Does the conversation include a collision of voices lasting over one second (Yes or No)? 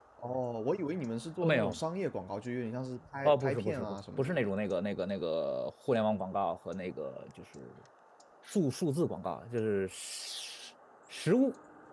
Yes